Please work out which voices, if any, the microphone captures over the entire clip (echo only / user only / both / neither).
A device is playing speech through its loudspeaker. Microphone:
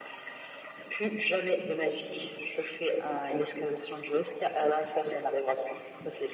echo only